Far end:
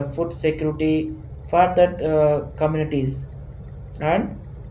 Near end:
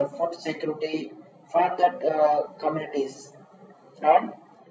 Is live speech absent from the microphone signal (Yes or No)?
Yes